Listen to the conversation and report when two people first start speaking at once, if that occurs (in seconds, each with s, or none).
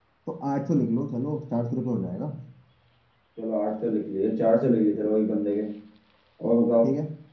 none